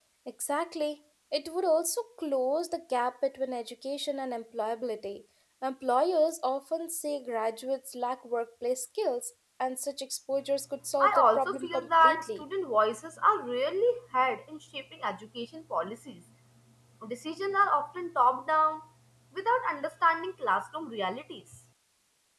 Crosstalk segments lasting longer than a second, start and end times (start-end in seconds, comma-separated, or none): 11.0-12.4